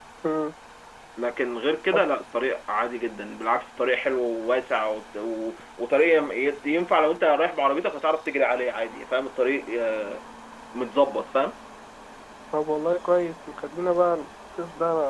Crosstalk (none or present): none